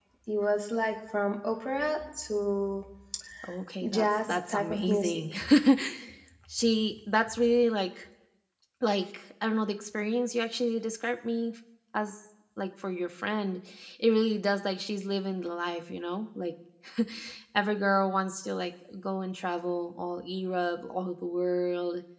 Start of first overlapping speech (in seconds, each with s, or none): 3.9 s